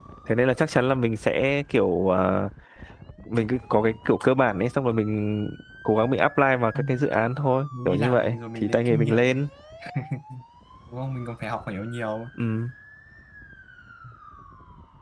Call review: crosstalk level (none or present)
present